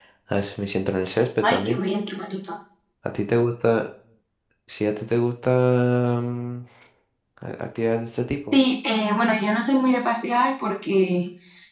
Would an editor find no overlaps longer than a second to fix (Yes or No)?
Yes